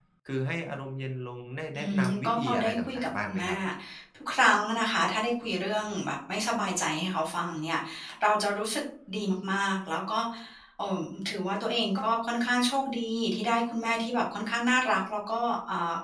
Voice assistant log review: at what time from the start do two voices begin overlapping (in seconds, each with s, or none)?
1.7 s